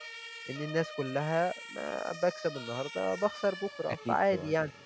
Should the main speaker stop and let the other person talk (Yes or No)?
Yes